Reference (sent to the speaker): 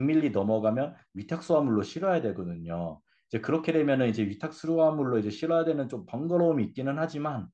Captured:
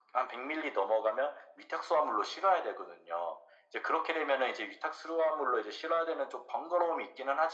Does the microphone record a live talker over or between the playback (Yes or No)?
No